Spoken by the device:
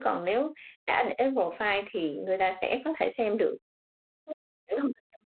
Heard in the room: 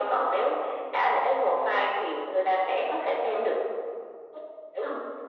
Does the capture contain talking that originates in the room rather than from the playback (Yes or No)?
No